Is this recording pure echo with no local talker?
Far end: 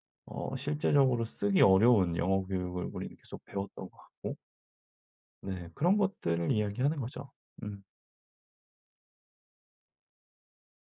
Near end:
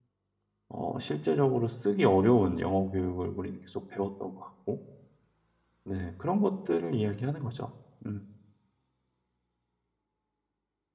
Yes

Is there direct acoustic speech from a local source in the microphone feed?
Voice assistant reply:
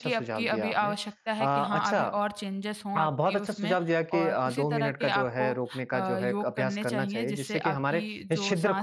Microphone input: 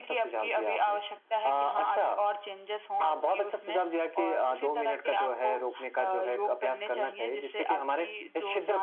No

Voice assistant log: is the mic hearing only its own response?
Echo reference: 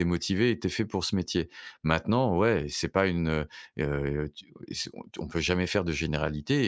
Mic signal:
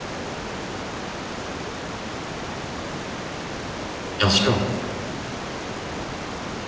No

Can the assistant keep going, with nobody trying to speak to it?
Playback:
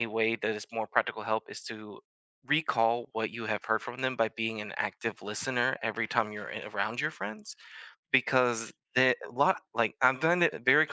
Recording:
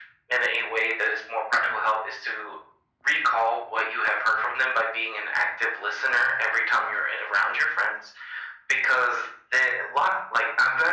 Yes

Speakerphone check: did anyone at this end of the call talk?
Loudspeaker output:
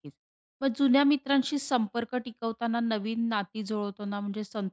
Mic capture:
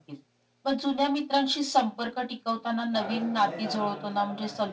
Yes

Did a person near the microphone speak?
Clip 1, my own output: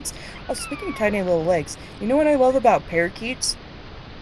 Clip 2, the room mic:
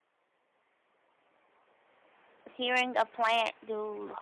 Yes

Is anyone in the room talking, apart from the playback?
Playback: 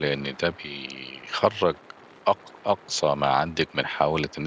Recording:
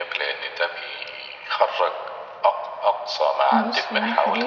Yes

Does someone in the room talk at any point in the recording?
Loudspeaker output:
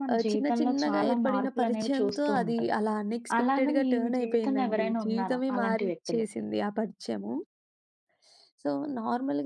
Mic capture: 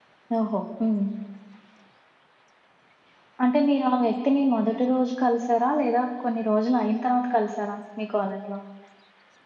Yes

